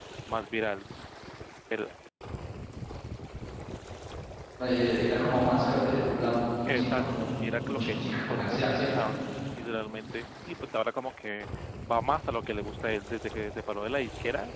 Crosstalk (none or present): present